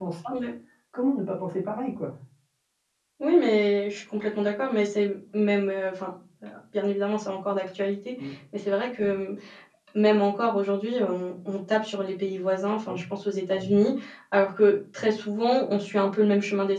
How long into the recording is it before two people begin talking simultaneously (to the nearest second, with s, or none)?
none